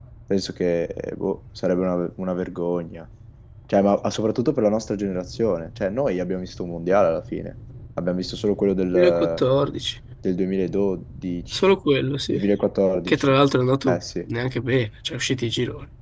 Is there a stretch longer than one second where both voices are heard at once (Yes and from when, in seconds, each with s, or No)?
No